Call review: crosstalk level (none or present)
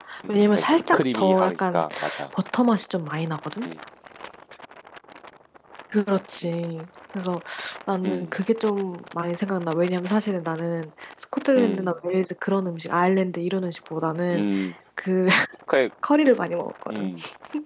present